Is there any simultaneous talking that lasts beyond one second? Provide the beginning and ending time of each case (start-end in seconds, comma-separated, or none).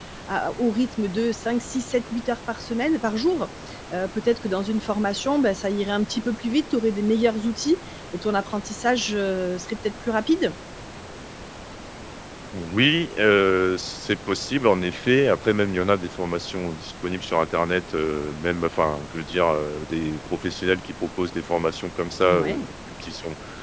none